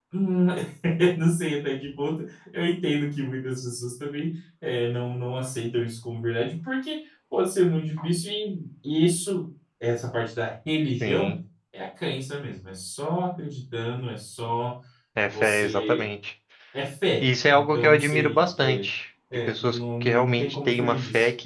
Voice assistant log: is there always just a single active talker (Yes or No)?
No